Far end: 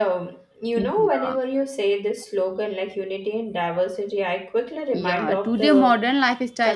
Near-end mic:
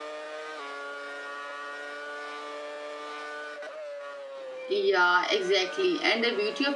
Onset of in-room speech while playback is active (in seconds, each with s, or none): 4.7 s